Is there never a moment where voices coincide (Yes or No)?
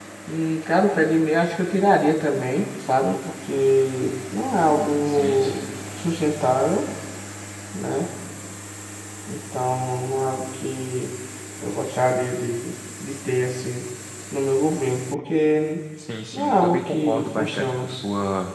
No